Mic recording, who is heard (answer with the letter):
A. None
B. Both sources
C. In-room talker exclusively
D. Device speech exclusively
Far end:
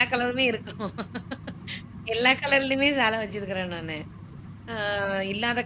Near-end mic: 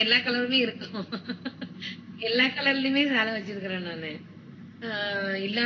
D